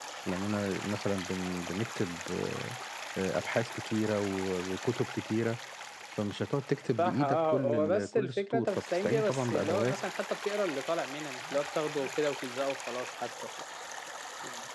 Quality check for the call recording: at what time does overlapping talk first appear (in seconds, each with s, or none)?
7.0 s